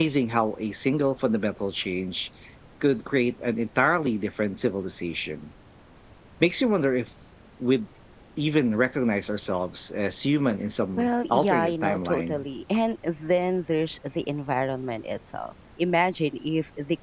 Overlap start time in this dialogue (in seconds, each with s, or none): 11.0 s